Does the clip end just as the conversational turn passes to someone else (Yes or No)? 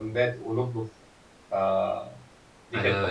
Yes